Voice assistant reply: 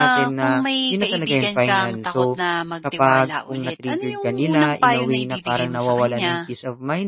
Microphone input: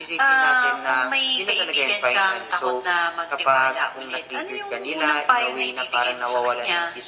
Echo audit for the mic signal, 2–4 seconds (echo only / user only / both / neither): echo only